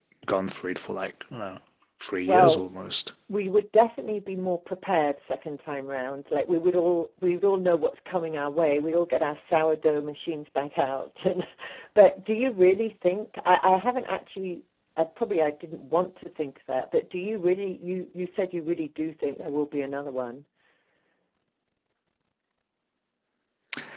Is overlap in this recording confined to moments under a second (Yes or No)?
Yes